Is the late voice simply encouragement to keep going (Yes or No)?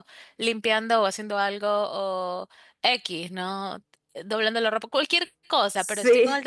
Yes